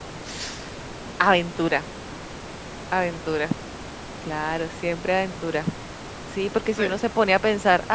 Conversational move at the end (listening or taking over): listening